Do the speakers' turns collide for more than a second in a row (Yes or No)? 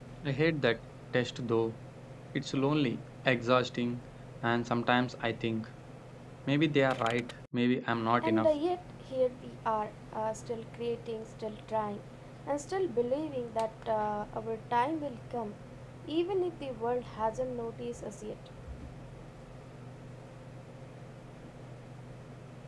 No